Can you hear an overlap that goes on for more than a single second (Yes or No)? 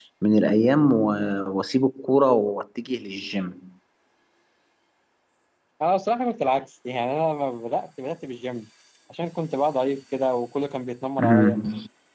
No